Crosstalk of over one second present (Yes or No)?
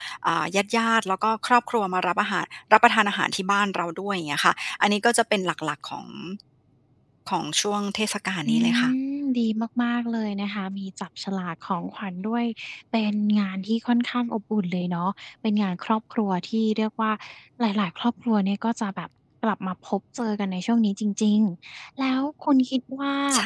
No